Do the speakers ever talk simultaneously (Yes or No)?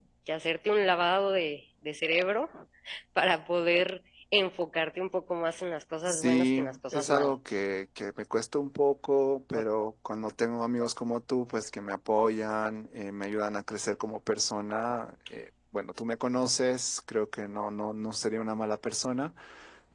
Yes